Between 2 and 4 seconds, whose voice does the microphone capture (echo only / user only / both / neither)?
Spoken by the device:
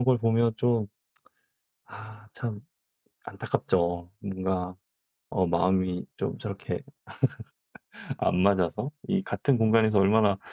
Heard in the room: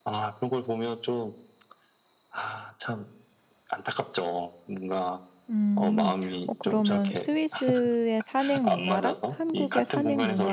echo only